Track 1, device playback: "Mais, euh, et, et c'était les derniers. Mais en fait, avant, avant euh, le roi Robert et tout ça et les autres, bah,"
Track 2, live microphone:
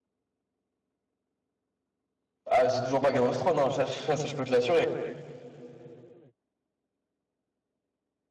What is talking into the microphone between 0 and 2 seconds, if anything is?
neither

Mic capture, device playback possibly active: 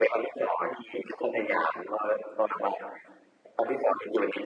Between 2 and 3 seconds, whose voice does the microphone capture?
echo only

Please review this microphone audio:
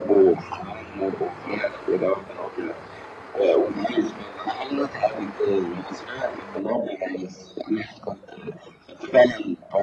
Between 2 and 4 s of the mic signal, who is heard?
echo only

